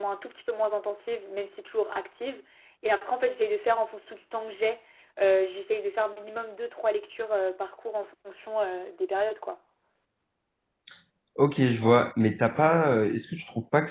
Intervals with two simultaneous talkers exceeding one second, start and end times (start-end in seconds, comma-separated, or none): none